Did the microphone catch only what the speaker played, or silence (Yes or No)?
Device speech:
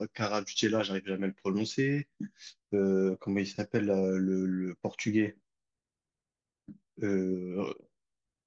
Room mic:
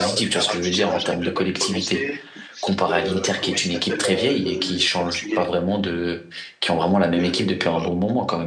No